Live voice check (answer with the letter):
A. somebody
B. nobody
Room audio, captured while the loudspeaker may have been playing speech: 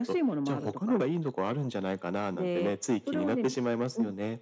B